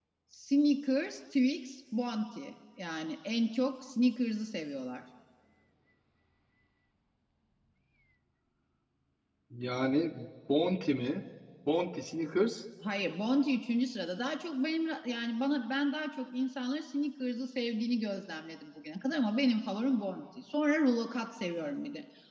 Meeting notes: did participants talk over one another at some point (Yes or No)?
No